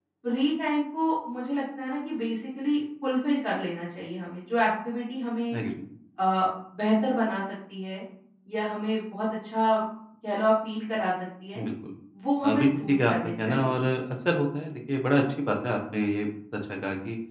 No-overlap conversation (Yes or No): No